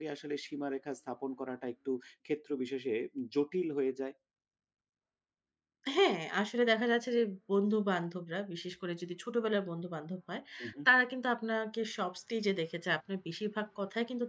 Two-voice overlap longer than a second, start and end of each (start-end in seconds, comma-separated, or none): none